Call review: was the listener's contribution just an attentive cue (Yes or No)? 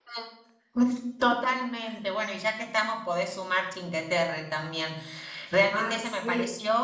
Yes